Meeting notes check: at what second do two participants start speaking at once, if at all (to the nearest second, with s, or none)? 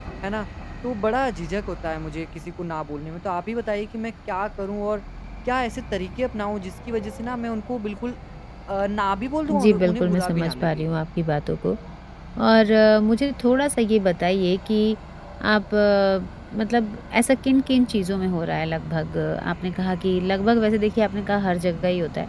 9 s